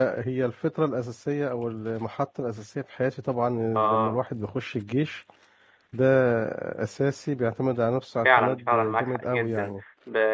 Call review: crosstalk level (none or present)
present